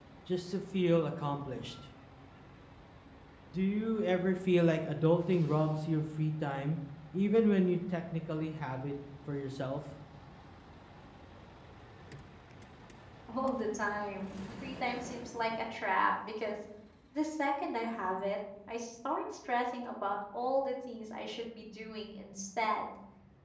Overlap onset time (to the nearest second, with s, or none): none